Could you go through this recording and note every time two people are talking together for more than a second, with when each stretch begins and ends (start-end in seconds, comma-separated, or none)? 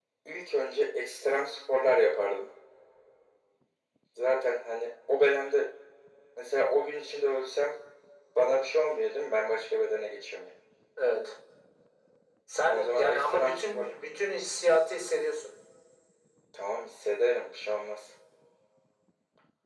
12.7-14.0